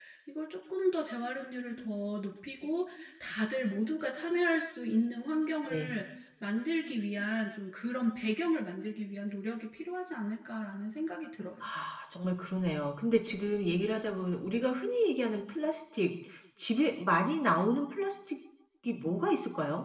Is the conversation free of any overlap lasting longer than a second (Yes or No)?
Yes